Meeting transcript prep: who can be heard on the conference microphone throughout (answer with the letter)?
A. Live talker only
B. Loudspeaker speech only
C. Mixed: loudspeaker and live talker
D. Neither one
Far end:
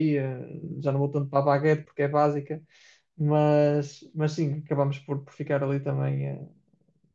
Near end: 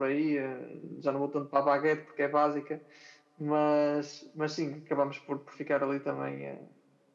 B